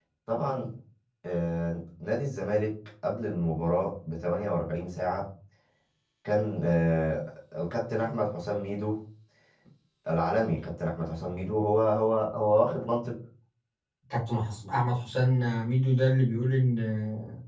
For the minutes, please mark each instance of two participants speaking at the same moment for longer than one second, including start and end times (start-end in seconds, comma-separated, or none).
none